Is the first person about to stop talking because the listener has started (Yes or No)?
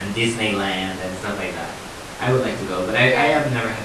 No